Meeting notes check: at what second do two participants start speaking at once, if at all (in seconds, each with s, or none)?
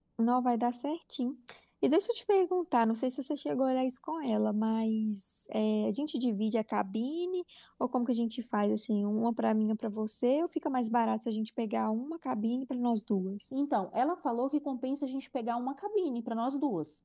none